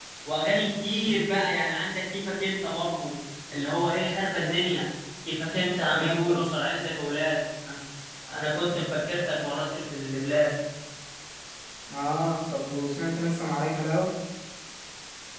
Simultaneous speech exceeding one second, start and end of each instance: none

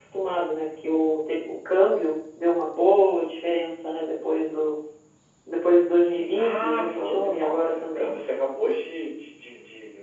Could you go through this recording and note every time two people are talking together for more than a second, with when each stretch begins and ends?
6.0-8.1

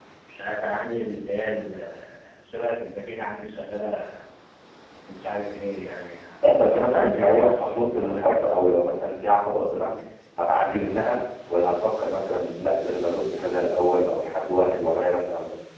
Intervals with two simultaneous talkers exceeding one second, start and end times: 6.7-8.6

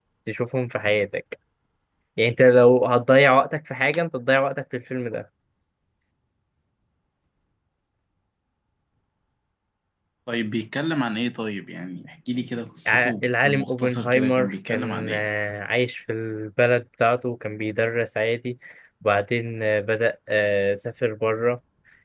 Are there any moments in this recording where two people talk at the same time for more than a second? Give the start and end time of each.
12.9-15.2

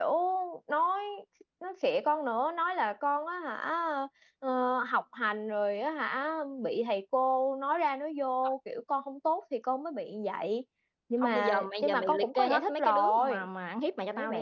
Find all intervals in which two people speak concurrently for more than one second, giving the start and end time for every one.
11.2-13.5

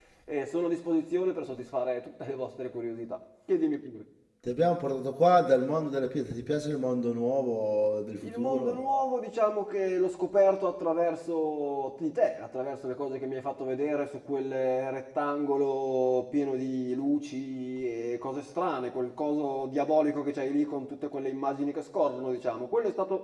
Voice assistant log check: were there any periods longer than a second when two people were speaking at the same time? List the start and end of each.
none

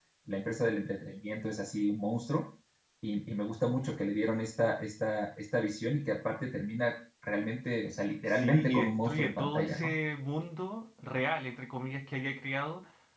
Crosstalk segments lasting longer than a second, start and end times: 8.3-9.9

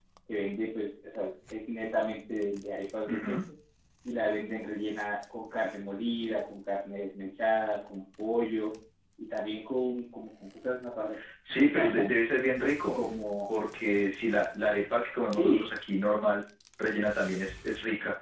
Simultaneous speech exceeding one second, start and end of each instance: none

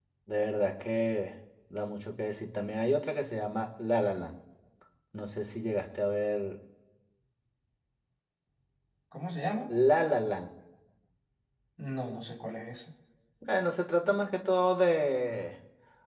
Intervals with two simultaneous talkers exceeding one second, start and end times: none

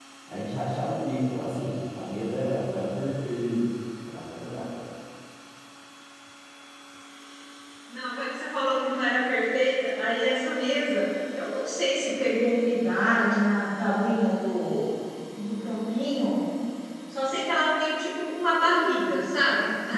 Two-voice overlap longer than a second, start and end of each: none

